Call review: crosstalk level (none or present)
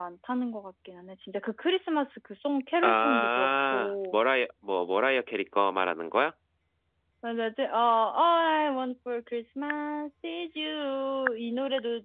present